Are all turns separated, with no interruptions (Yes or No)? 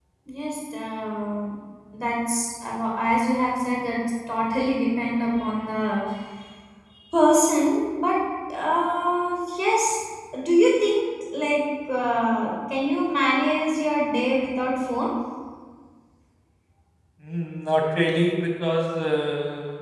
Yes